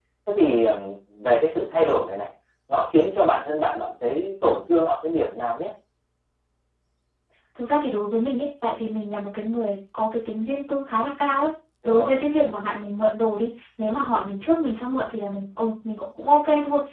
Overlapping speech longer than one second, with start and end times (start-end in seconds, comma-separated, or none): none